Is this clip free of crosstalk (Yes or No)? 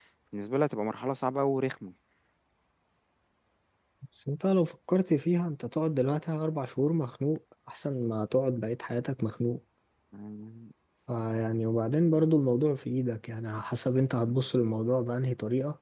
Yes